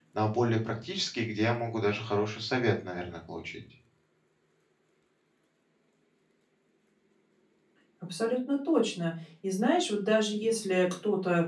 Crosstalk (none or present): none